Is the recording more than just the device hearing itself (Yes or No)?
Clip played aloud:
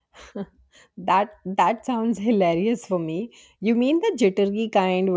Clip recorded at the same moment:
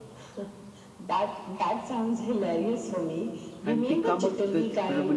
Yes